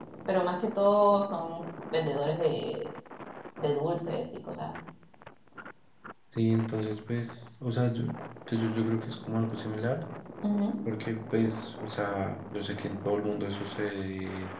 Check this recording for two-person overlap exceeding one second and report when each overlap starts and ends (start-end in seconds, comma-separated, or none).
none